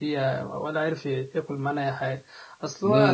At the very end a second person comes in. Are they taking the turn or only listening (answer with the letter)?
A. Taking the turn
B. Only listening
B